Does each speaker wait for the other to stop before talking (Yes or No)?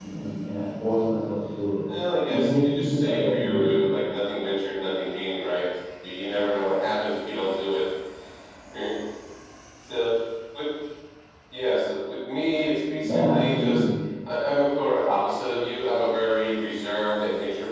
No